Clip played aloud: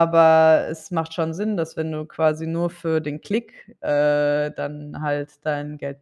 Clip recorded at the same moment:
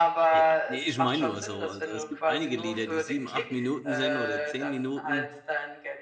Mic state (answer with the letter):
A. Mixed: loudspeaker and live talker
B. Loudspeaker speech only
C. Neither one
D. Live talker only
A